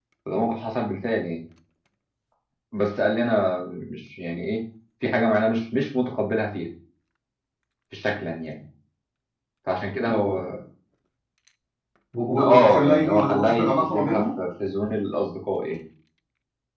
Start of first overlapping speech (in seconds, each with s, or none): 12.4 s